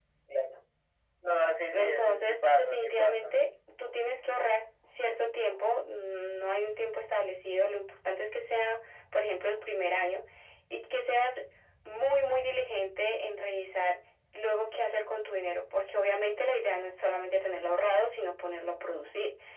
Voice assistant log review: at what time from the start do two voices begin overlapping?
1.7 s

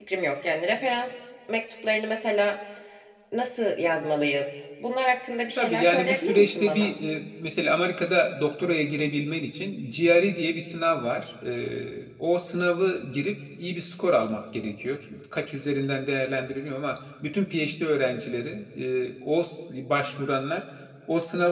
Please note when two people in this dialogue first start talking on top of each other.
5.6 s

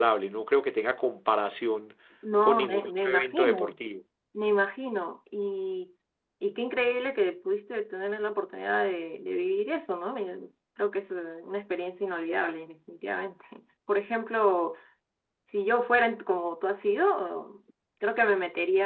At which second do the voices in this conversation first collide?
2.4 s

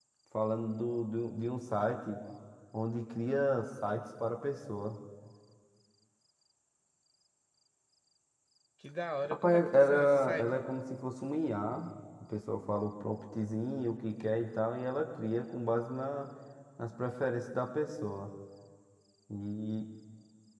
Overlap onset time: 9.2 s

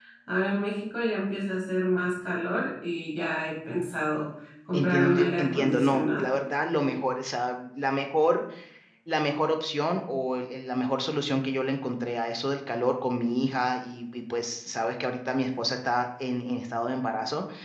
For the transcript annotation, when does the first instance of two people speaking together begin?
4.7 s

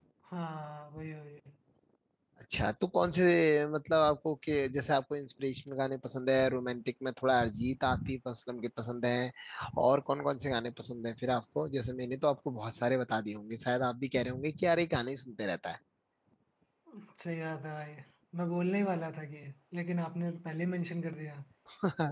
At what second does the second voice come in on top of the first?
none

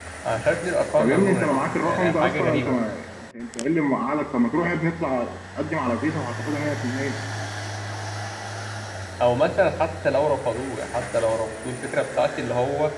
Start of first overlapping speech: 1.0 s

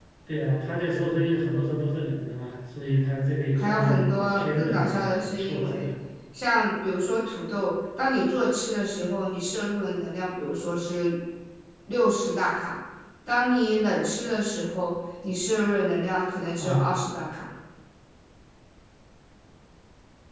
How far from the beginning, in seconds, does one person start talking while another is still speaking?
3.5 s

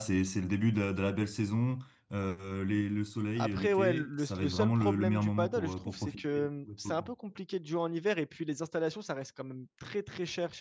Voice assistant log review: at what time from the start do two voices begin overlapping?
3.4 s

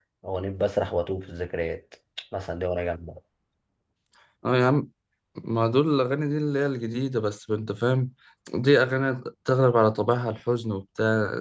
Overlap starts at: none

